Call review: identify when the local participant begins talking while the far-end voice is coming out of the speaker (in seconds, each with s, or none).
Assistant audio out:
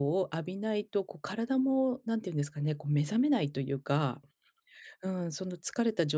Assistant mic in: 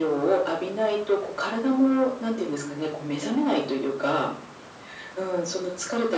none